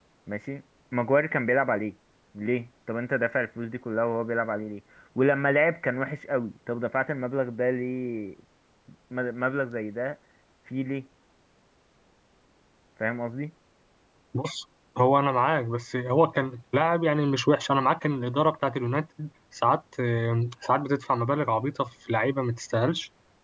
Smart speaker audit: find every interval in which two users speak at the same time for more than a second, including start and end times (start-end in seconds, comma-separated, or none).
none